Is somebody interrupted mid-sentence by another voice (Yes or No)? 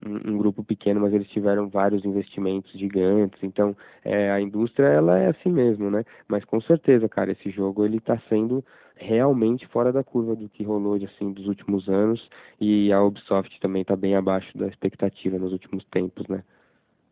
No